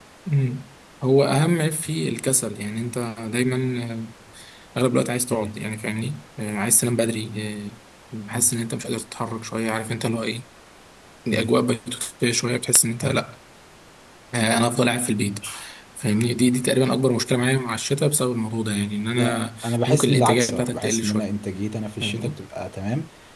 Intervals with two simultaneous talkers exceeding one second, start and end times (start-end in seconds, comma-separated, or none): 19.1-21.2